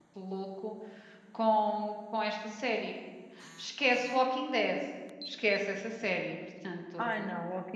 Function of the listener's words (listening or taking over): taking over